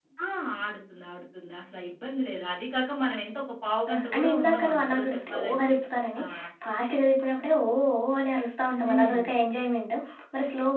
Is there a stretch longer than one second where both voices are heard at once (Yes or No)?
Yes